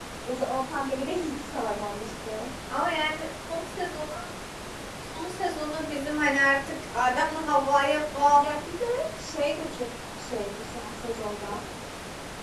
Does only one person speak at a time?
Yes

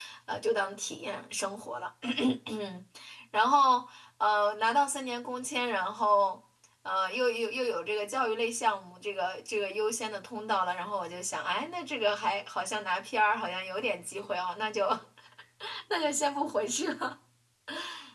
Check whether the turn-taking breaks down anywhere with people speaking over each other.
No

